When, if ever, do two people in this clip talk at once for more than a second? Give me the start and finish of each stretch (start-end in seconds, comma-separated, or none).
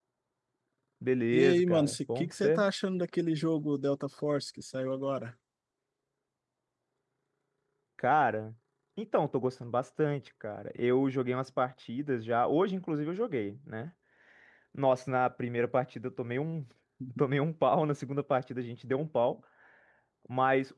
1.3-2.6